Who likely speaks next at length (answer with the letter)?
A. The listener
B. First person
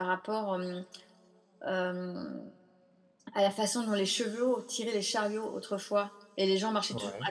B